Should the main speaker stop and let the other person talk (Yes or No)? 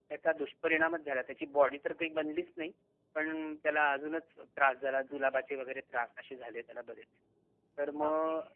No